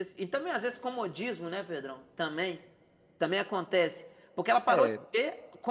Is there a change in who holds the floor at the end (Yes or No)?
No